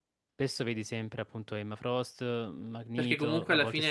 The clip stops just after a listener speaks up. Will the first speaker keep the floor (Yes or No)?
No